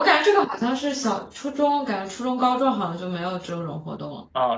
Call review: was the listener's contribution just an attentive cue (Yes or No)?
No